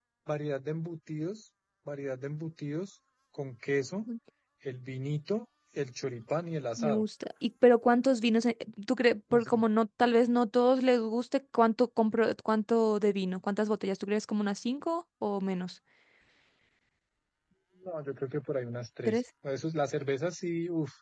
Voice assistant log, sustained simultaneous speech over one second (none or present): none